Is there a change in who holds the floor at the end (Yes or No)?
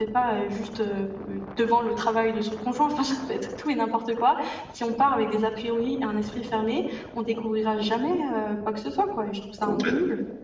Yes